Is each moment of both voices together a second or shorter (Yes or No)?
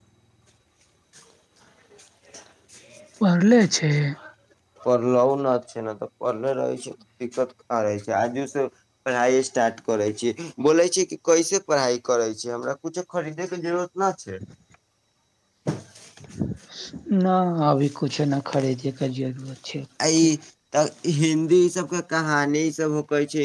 Yes